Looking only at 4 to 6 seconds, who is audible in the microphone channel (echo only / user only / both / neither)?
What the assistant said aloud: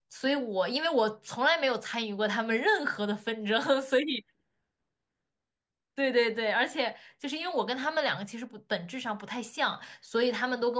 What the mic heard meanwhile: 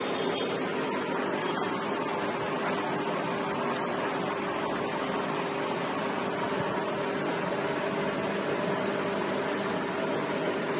neither